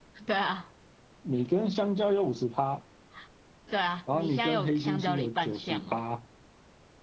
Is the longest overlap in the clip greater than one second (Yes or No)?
Yes